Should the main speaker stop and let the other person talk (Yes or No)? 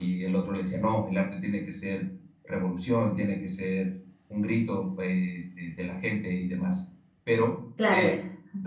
No